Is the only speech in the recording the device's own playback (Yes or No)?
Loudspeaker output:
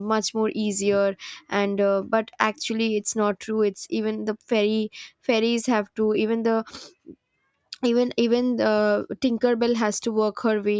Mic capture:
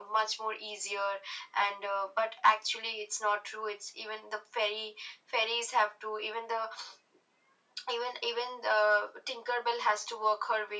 Yes